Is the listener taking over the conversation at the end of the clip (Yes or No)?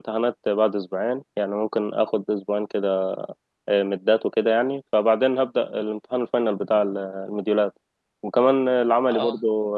No